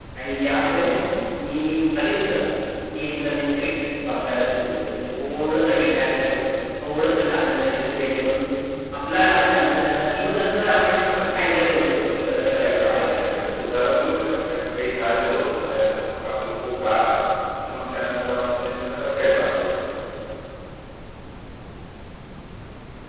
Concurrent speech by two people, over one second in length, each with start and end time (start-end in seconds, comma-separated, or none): 12.2-13.6